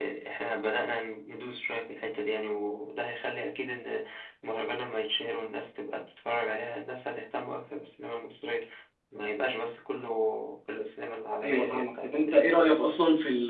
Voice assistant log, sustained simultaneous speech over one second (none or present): present